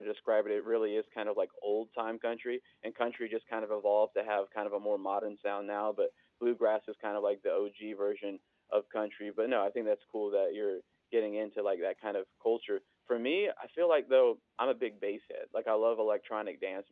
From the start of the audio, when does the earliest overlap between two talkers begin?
none

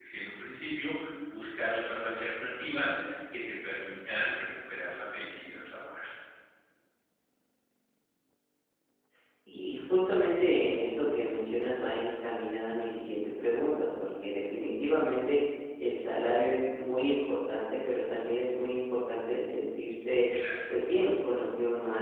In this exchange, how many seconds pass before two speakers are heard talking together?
none

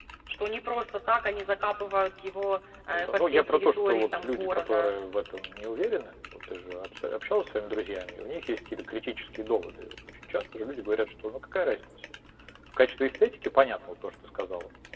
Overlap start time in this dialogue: 3 s

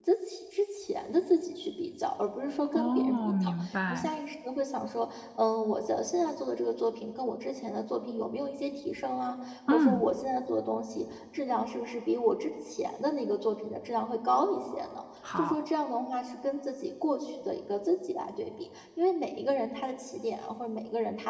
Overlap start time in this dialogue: 3 s

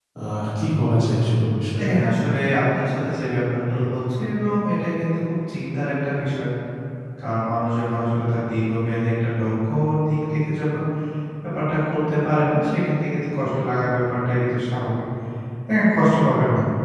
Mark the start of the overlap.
none

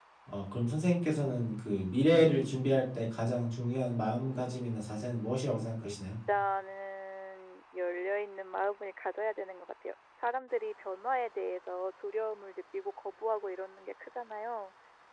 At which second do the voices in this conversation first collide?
4 s

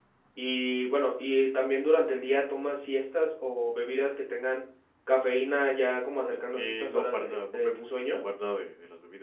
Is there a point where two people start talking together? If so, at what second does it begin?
7 s

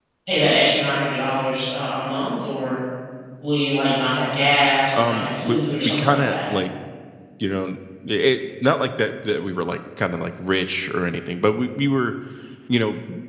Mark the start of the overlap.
5 s

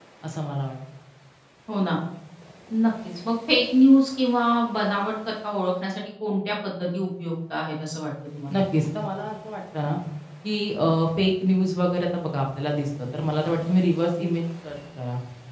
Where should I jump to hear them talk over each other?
none

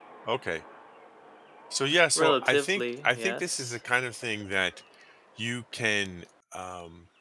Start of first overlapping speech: 2 s

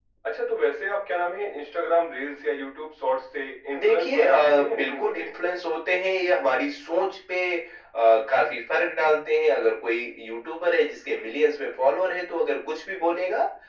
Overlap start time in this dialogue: 4 s

